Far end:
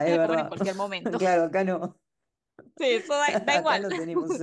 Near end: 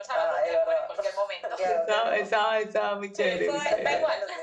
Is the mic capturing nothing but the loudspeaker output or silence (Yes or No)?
No